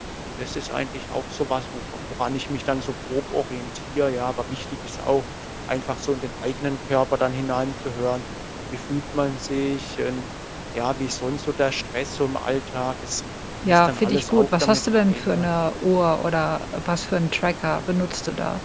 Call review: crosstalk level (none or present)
present